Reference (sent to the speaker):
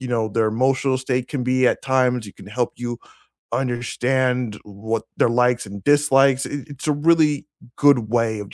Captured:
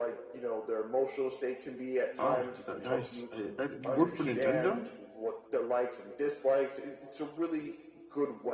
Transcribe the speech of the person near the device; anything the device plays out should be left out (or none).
Ah, uh, nice. I, I, you work for Nintendo?